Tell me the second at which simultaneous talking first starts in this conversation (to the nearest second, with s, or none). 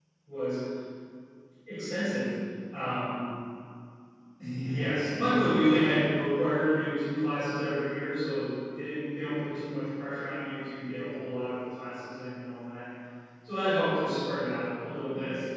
5 s